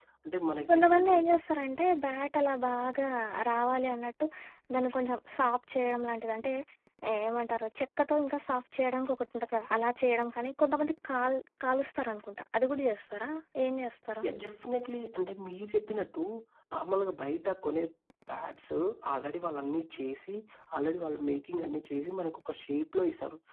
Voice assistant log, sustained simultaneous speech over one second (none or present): none